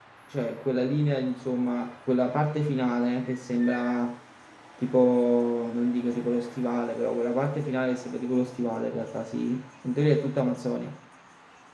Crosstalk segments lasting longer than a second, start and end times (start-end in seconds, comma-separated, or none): none